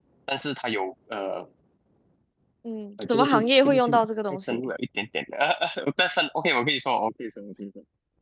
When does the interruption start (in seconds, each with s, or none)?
3.0 s